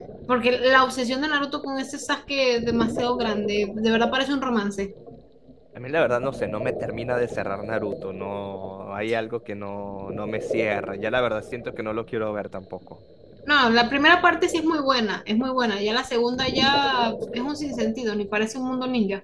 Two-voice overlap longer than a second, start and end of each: none

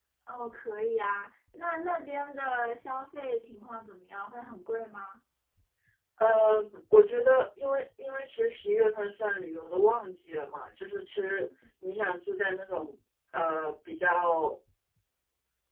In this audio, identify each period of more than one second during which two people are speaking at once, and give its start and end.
none

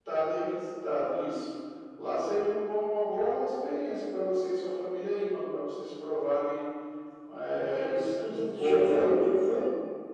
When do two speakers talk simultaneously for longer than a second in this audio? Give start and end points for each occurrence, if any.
7.5-9.1

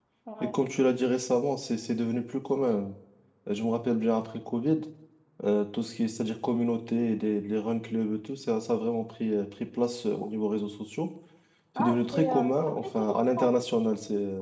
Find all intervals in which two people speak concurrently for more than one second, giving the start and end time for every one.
11.8-13.5

